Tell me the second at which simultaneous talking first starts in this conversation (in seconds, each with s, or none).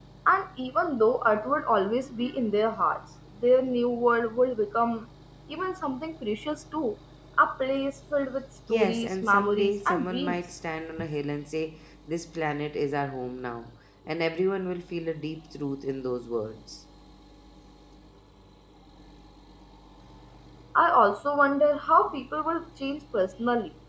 8.7 s